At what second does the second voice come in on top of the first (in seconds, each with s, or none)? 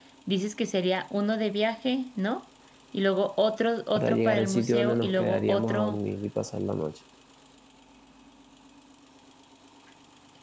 4.0 s